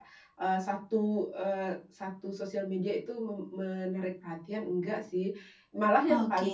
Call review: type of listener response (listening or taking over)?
listening